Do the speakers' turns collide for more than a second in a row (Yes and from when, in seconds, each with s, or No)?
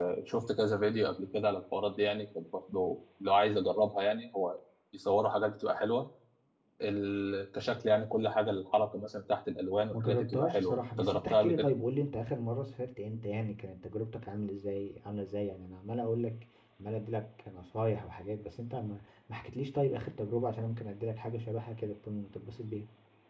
Yes, from 9.9 s